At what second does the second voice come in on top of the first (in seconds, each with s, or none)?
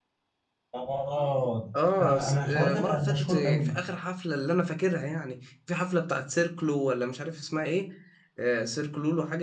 2.0 s